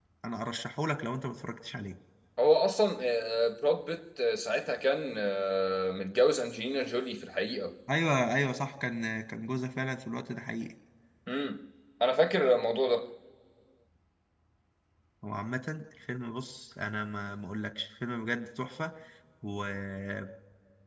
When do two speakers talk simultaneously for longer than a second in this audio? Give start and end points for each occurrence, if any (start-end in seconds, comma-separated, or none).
none